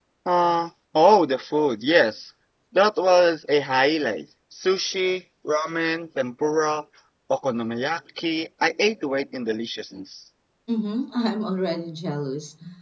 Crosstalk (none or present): none